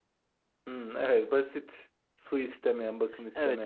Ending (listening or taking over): taking over